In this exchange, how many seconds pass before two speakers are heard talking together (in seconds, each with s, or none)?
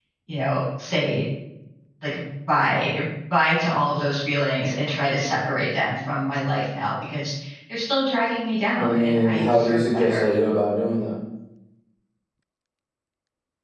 8.8 s